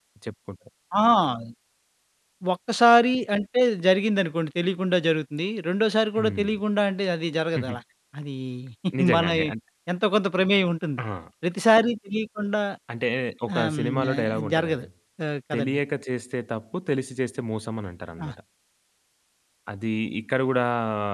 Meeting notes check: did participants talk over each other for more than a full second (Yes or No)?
Yes